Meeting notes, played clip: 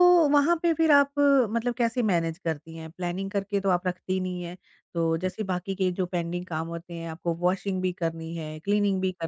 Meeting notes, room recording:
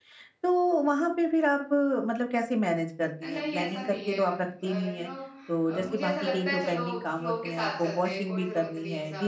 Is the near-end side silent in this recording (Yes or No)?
No